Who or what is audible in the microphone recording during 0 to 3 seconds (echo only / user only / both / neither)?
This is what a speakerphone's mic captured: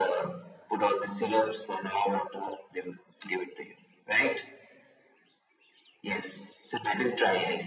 echo only